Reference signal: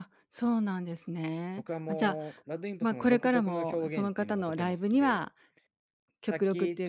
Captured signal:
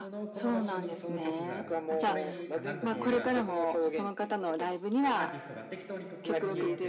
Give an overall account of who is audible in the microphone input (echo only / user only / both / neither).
both